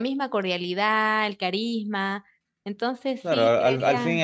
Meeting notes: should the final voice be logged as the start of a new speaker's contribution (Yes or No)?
Yes